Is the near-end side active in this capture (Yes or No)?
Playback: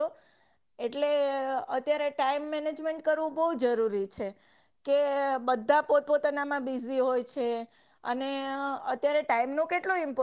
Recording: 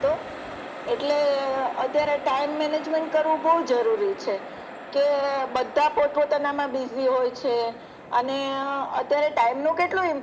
No